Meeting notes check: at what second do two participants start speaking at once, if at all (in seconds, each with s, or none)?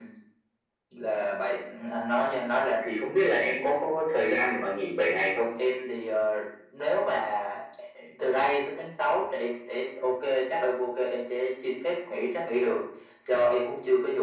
none